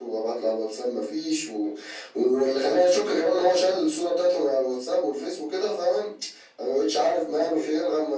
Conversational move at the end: listening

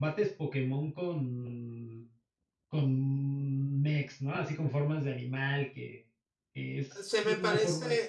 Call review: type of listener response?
taking over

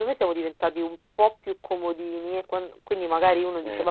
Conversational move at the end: listening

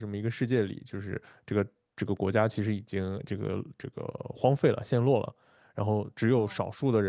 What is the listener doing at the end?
listening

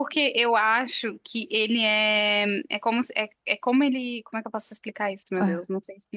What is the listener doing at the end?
listening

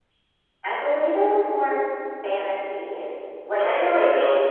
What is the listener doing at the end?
taking over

